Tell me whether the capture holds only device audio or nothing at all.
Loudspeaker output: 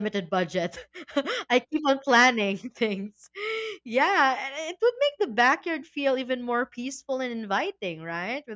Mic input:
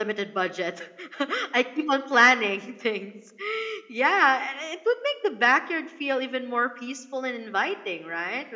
Yes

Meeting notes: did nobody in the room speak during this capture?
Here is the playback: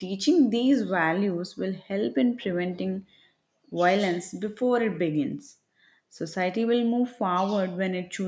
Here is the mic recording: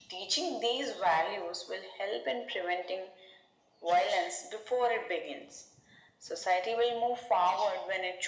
Yes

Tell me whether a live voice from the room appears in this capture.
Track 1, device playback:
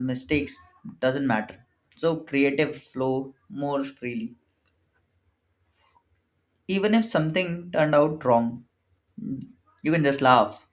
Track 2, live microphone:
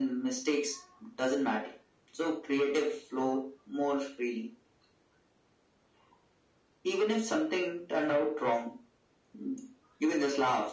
No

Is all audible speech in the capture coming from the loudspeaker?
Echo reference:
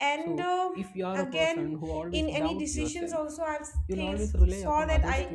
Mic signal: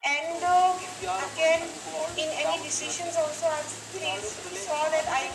Yes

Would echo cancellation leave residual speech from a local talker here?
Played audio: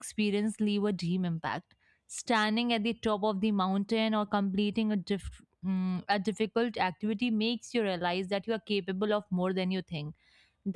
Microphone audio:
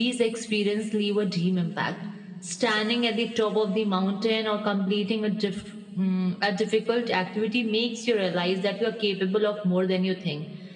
No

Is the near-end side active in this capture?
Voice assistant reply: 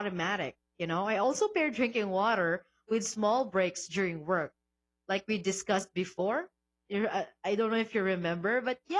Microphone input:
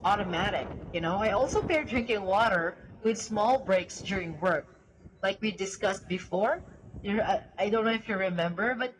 No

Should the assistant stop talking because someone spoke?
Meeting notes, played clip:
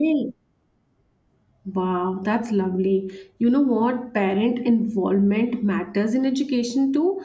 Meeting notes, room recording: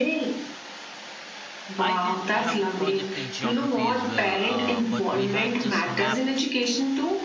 Yes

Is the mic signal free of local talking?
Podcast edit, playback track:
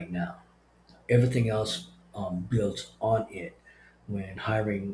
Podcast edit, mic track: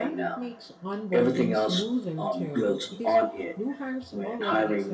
No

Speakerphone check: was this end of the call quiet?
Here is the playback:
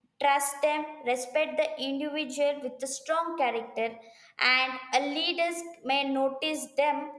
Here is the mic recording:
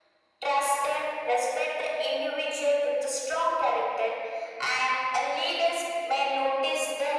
Yes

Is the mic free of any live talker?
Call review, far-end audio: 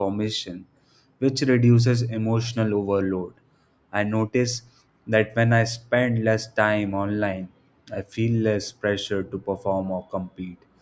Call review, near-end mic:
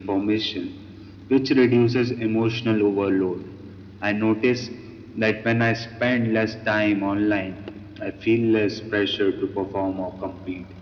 Yes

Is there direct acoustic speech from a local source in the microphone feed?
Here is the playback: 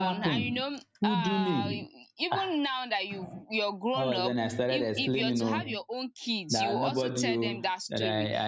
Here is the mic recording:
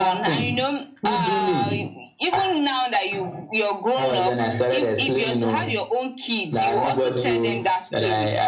No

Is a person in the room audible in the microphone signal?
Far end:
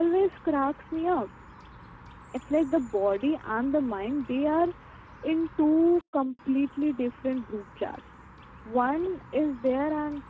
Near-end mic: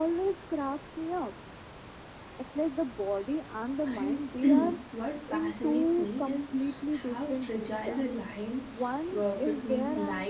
Yes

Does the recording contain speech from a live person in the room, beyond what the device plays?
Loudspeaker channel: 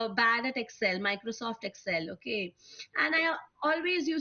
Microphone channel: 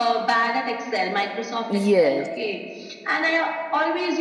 Yes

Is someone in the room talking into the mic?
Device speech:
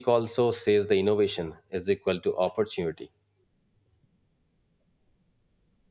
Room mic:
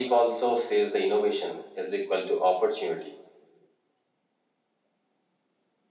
No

